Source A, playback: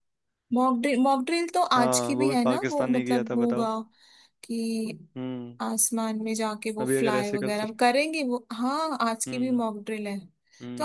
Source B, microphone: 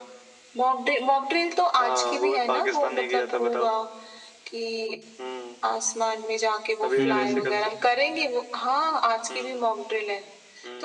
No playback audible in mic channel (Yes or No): No